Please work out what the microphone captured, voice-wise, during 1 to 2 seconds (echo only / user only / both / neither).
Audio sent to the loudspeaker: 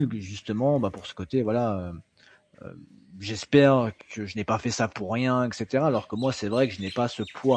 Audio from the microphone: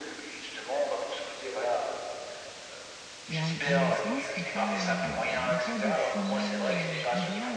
echo only